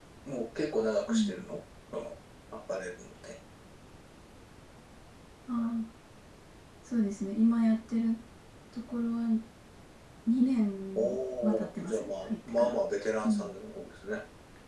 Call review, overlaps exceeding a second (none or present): present